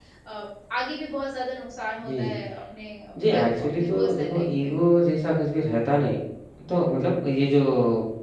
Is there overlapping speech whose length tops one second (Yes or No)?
Yes